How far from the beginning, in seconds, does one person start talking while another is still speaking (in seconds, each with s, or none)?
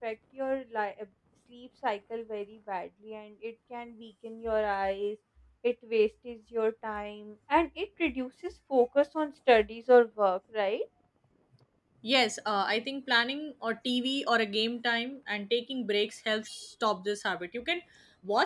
none